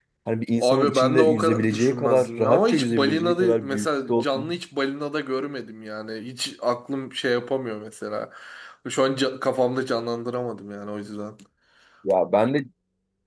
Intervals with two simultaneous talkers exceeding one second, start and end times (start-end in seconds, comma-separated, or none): 0.6-4.6